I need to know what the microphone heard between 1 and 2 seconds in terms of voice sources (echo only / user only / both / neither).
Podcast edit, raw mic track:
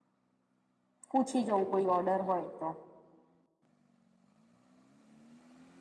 user only